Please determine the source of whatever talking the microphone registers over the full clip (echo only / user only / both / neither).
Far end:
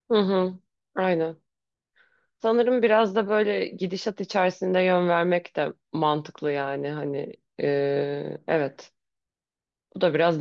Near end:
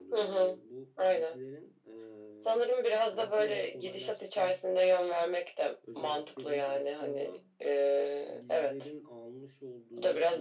both